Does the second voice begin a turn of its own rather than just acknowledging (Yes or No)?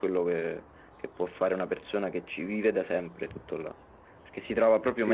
Yes